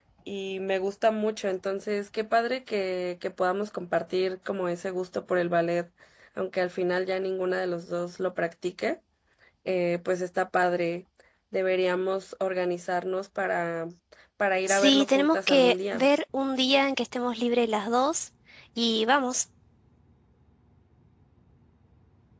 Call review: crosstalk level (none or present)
present